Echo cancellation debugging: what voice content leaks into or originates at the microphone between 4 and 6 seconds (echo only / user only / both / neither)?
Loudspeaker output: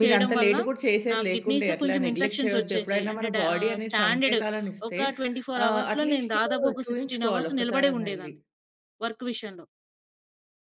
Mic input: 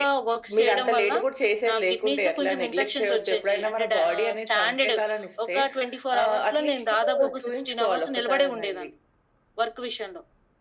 echo only